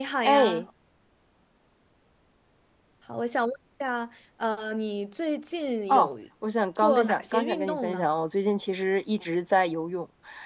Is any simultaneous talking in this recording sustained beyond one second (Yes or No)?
Yes